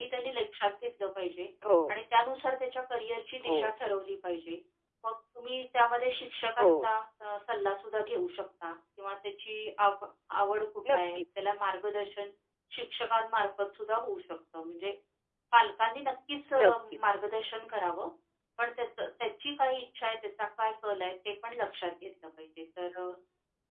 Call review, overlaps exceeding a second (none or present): none